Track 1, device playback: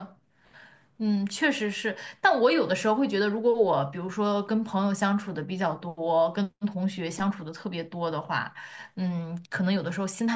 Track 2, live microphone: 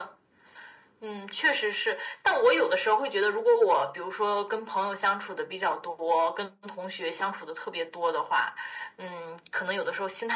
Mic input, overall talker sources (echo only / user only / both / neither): echo only